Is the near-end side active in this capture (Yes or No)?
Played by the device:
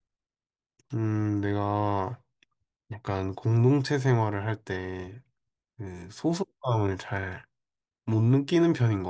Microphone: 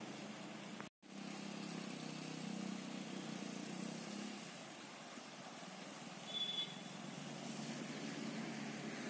No